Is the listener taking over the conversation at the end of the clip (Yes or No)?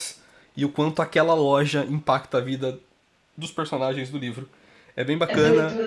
Yes